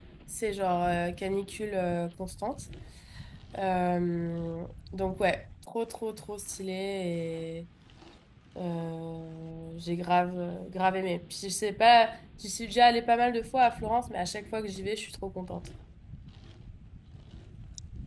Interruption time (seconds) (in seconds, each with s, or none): none